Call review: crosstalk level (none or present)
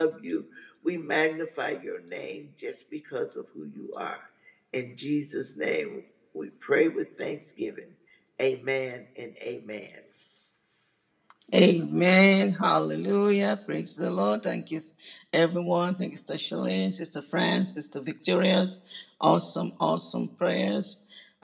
none